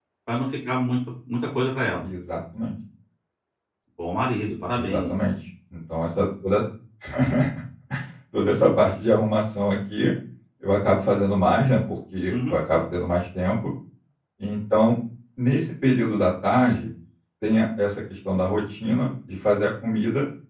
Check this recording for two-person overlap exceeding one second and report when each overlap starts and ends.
none

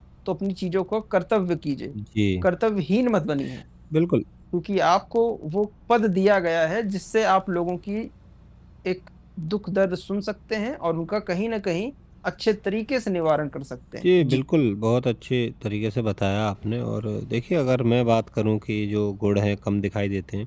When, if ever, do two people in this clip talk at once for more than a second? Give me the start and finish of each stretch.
none

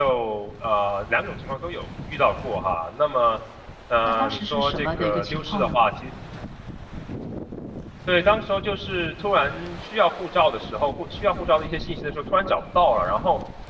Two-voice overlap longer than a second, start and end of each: 4.0-5.8

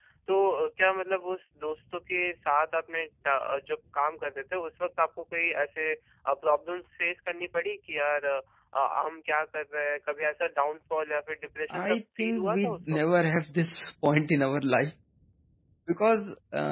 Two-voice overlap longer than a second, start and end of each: 11.8-13.0

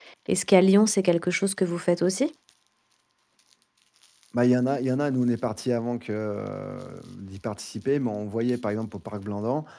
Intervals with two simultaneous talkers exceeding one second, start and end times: none

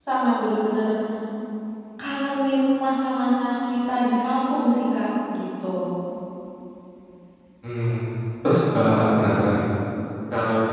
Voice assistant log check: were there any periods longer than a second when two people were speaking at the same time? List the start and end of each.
none

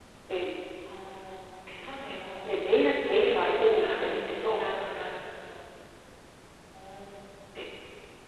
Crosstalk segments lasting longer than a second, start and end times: 3.1-4.6

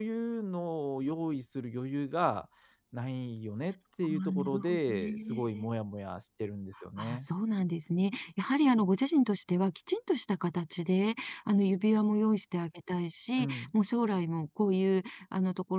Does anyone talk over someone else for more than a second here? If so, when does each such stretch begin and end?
4.0-5.7

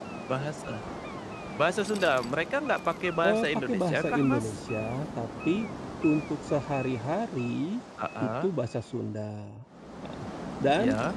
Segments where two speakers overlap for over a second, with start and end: 3.2-4.6

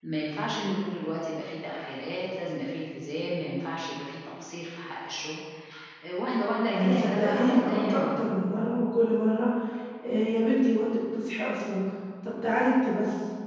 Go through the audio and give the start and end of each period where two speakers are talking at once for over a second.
6.7-8.2

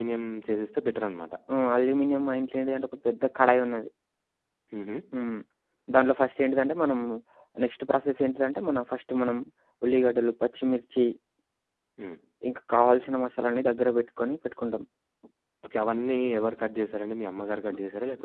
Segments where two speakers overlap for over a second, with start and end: none

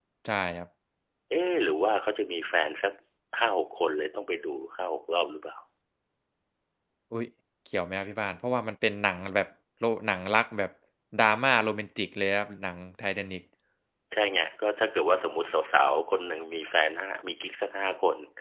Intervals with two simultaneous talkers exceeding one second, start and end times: none

